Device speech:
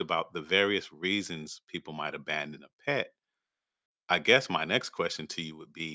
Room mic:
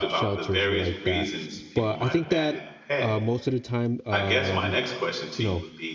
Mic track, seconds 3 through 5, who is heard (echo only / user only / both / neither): both